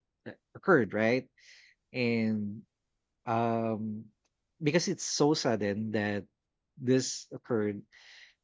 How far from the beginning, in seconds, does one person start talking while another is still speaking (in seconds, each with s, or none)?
none